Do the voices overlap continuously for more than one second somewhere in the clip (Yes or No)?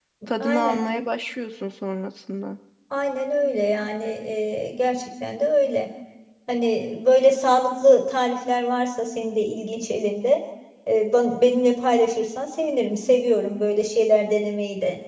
No